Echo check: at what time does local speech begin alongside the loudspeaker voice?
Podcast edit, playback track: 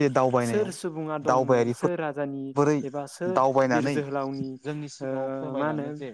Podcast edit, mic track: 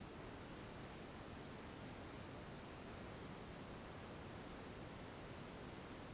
none

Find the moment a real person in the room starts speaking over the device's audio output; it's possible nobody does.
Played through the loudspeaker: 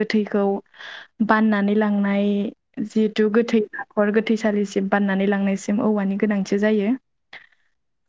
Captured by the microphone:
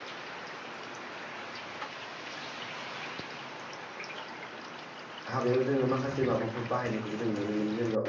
5.3 s

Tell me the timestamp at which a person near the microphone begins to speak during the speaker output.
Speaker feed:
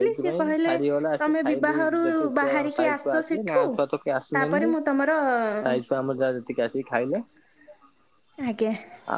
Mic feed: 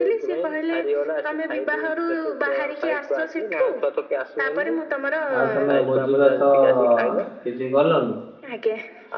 5.4 s

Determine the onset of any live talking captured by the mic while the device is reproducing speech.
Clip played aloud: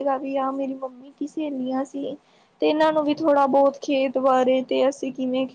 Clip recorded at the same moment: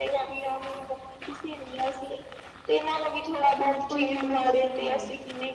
3.6 s

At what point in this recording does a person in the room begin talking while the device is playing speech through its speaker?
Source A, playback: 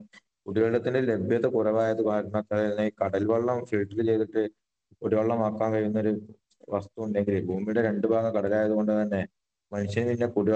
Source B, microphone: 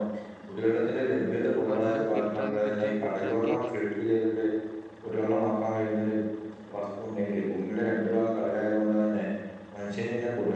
1.8 s

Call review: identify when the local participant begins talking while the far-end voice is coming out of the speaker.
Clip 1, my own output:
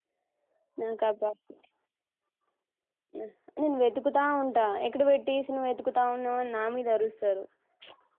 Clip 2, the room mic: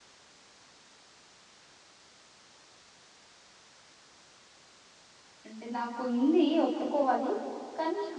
5.5 s

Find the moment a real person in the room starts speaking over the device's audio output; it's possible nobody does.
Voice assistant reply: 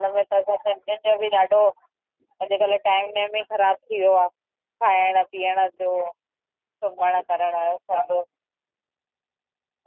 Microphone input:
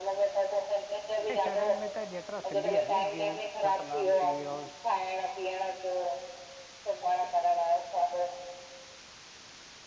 1.2 s

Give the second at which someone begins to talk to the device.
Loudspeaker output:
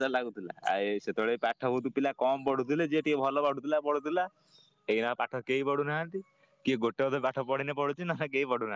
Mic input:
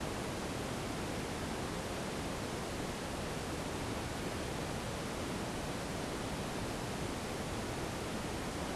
none

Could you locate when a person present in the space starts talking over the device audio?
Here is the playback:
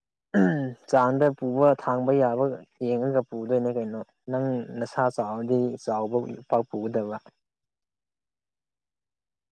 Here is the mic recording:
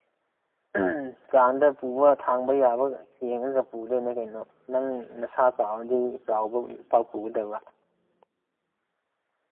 none

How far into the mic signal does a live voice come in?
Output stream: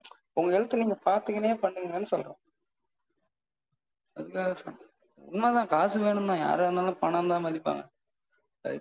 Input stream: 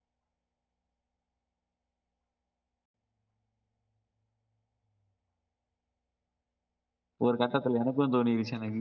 7.3 s

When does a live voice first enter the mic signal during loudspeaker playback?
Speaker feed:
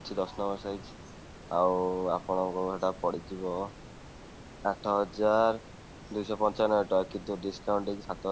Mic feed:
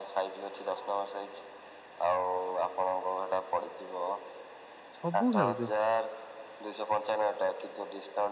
5.0 s

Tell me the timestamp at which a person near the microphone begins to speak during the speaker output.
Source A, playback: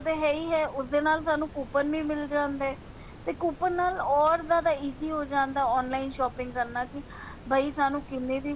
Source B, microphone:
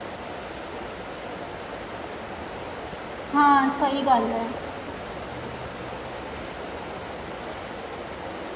3.4 s

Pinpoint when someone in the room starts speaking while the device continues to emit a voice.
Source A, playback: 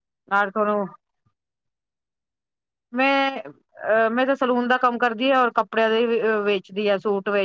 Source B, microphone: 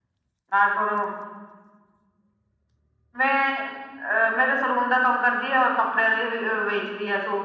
none

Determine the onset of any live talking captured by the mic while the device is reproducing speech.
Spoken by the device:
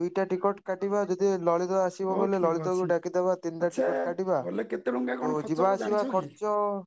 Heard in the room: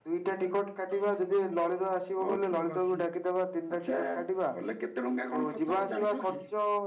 none

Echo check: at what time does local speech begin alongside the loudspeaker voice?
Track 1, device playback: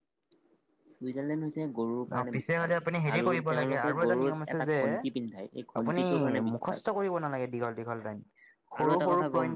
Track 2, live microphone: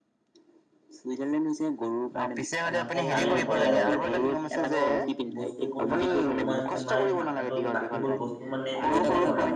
2.8 s

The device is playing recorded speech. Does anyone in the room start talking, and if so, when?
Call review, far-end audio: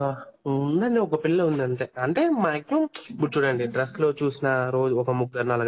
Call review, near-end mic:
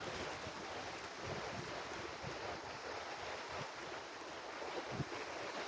none

